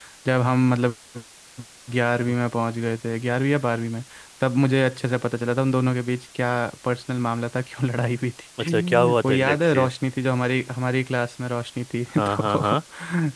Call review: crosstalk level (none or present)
present